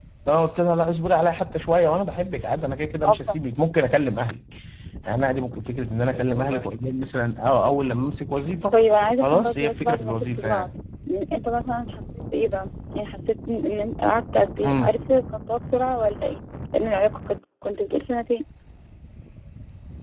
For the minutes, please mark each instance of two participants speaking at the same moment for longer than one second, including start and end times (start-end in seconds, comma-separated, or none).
9.2-10.7